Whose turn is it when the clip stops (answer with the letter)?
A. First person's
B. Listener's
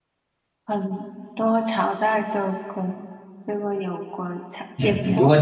B